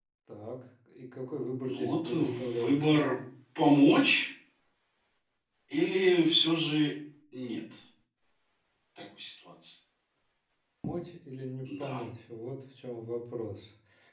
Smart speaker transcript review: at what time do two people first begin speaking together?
2 s

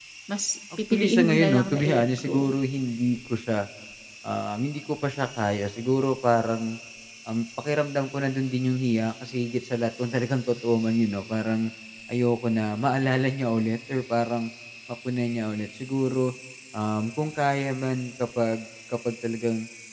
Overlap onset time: 1 s

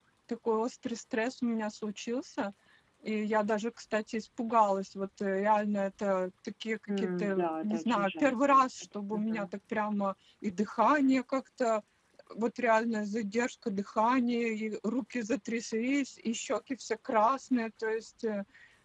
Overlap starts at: 7 s

